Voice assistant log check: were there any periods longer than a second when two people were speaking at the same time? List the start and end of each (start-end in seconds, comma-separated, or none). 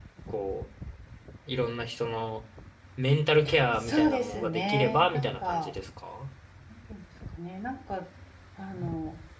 3.8-5.7